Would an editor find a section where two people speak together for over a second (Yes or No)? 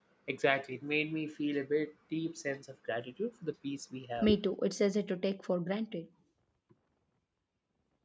No